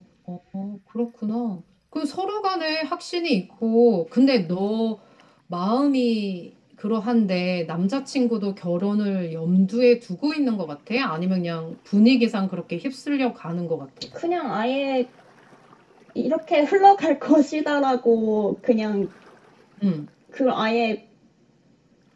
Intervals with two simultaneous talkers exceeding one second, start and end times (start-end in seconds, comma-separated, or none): none